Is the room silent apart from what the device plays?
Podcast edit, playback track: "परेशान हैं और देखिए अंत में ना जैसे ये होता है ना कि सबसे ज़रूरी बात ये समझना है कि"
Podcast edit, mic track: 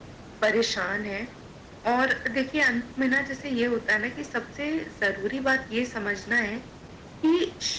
Yes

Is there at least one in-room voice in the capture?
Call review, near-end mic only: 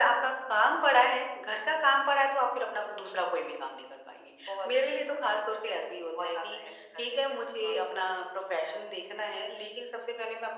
No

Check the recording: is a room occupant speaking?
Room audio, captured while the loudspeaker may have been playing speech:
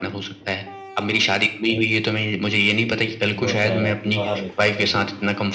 Yes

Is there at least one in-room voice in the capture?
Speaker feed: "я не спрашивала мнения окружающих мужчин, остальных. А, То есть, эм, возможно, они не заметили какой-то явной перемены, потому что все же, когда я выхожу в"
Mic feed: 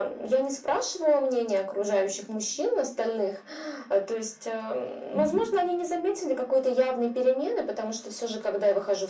Yes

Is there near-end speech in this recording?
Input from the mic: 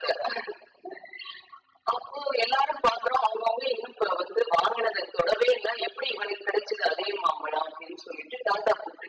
No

